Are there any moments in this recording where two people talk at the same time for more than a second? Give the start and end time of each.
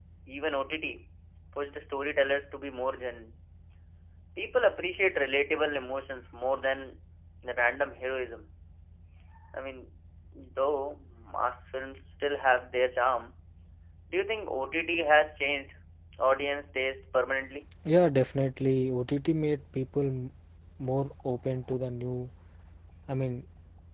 none

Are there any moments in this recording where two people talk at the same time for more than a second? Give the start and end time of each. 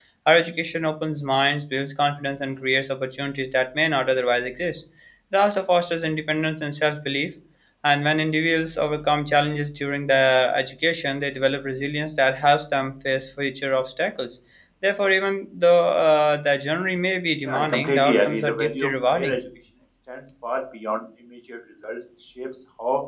17.4-19.4

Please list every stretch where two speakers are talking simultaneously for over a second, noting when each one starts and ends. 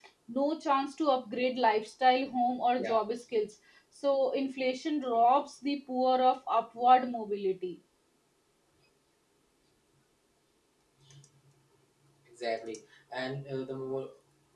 none

